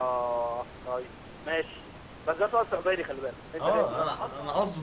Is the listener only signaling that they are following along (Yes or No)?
No